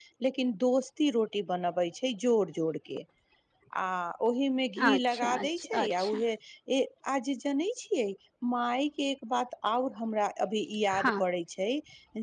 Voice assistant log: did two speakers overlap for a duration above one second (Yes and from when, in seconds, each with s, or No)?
Yes, from 4.9 s